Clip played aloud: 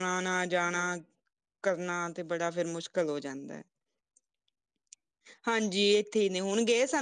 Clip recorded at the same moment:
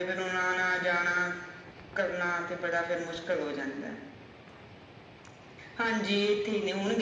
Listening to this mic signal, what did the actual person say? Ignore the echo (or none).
none